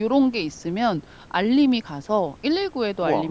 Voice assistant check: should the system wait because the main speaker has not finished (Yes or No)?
Yes